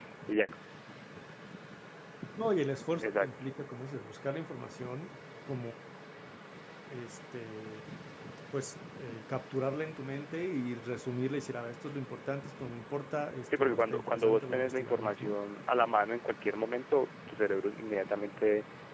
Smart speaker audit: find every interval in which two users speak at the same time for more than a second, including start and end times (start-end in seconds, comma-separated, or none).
13.6-15.4